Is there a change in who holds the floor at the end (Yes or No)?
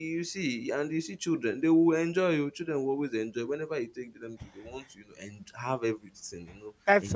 Yes